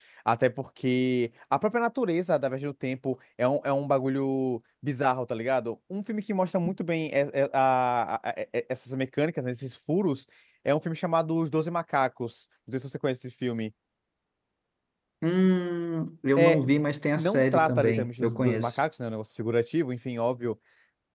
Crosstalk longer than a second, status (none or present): present